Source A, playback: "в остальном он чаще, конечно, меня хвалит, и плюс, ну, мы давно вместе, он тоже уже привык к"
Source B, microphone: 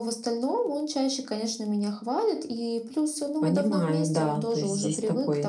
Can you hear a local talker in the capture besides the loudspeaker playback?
Yes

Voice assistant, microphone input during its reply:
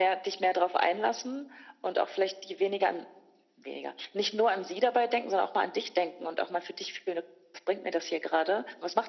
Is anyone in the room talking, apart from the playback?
No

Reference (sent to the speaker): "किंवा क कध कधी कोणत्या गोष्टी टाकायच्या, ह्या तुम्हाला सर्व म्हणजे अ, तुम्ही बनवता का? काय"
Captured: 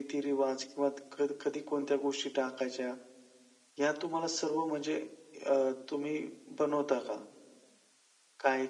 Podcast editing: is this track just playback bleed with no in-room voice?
Yes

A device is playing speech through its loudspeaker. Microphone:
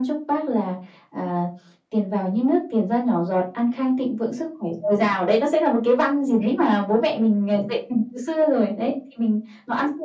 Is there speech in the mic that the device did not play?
No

